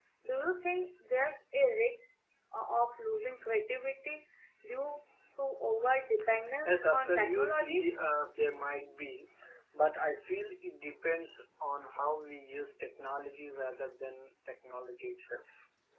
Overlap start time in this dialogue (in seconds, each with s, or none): 6.4 s